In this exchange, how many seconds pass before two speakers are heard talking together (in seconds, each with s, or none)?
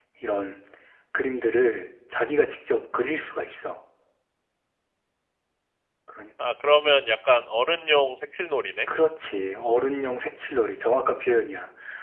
none